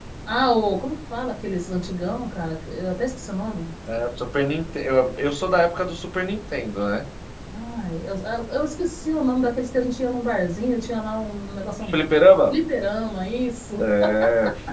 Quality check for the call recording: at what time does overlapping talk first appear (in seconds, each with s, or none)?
none